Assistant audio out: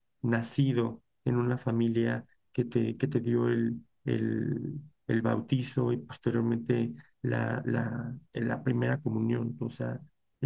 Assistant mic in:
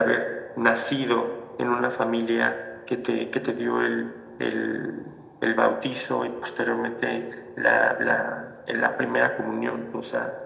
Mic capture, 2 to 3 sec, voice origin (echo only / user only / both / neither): echo only